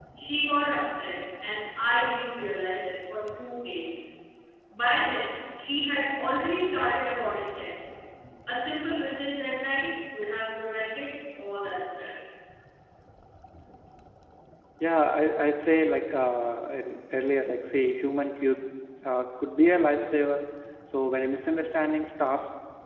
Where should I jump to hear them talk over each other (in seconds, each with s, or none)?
none